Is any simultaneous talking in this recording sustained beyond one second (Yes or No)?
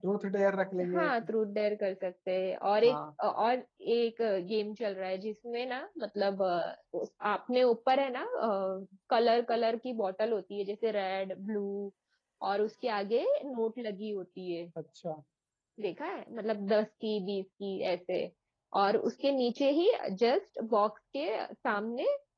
No